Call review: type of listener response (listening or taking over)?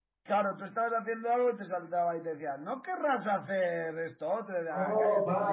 taking over